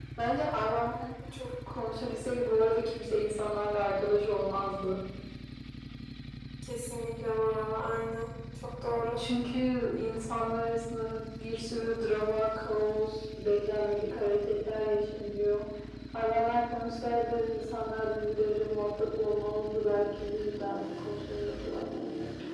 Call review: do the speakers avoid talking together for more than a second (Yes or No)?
Yes